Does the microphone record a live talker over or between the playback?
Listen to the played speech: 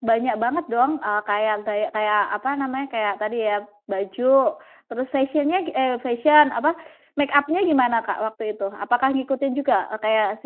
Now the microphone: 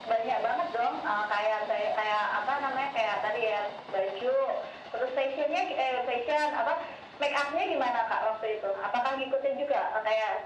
No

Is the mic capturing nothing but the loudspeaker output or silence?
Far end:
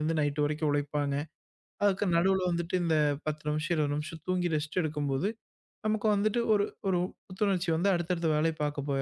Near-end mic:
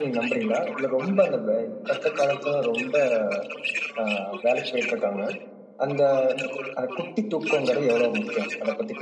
No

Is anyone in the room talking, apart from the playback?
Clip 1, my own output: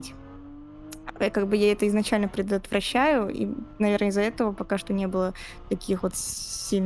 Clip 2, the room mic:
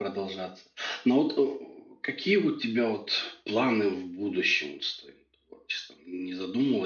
Yes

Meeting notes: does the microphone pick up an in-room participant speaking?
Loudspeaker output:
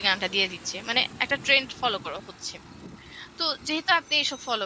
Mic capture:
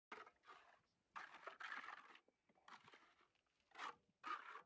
No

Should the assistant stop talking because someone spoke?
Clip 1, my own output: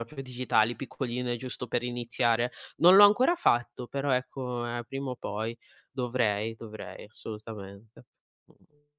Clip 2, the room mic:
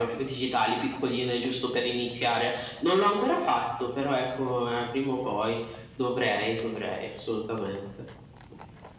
No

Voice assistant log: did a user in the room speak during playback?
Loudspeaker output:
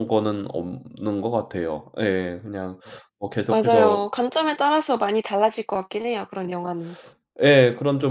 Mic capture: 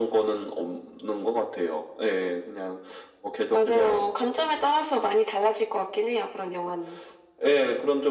No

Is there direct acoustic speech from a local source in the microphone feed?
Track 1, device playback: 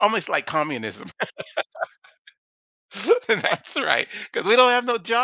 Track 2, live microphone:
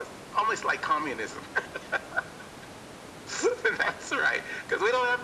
No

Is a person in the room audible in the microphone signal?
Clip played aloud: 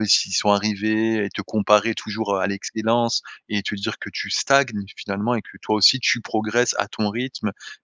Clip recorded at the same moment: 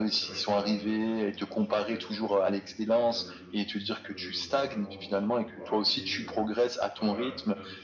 Yes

